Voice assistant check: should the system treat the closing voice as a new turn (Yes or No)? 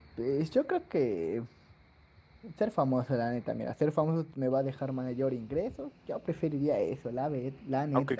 Yes